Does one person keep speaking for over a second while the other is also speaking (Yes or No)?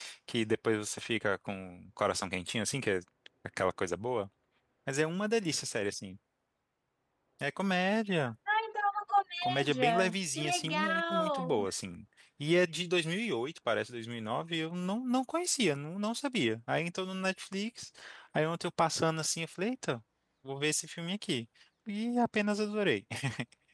Yes